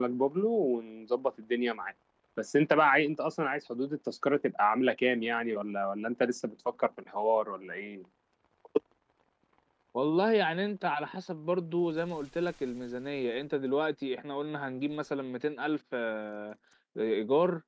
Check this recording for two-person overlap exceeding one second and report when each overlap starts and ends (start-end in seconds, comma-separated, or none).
none